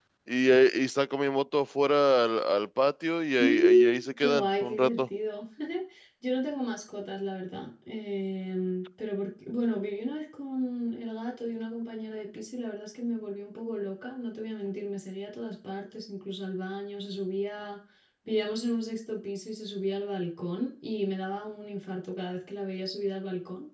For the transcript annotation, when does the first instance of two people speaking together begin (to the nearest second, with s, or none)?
3 s